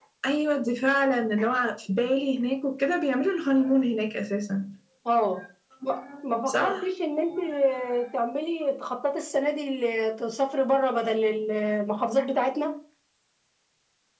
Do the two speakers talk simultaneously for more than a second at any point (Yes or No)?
No